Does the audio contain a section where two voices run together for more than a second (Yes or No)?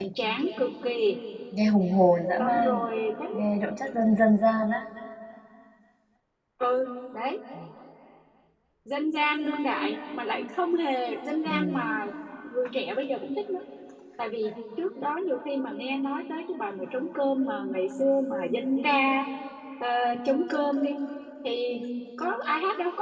No